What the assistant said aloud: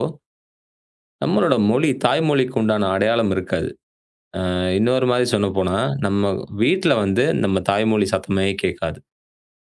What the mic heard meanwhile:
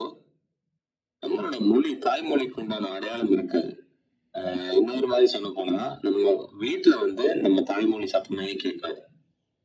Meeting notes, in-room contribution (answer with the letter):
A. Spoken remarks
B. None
B